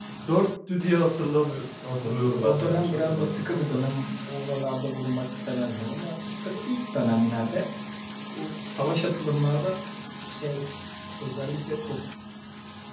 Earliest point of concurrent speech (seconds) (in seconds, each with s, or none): 1.9 s